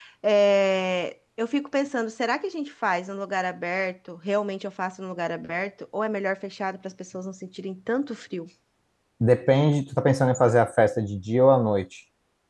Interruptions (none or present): none